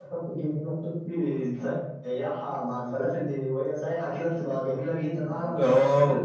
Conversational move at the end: taking over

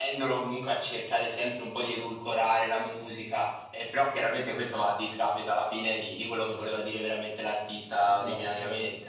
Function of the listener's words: taking over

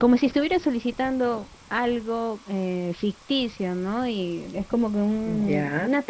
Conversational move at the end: listening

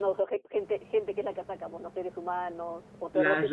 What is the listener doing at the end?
taking over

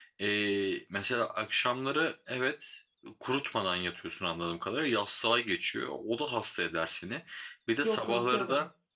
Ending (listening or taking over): listening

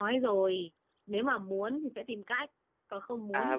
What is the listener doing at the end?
taking over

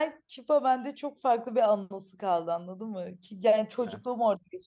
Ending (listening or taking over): listening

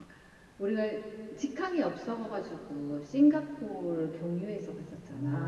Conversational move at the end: taking over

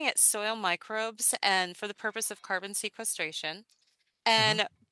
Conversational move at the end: listening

